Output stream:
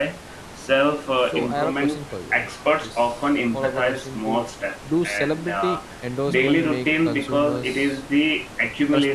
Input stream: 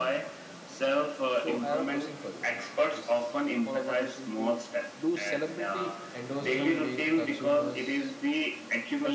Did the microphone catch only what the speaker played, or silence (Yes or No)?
Yes